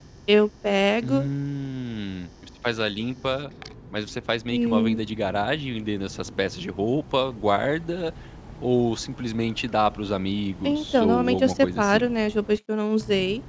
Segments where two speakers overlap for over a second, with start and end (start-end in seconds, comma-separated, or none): 10.6-12.0